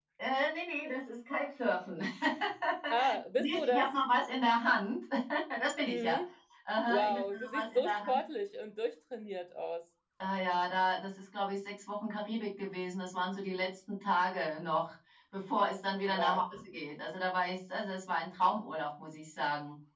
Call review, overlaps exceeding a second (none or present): present